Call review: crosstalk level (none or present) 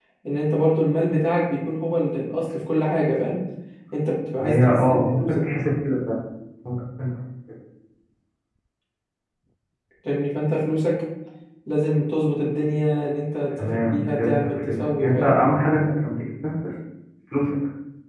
present